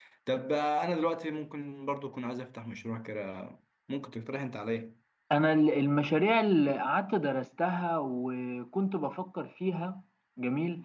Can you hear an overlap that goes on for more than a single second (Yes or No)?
No